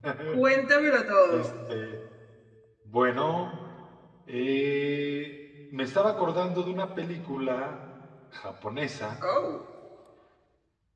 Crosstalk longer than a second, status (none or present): none